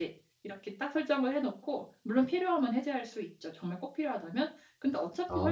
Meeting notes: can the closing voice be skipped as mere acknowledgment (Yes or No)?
Yes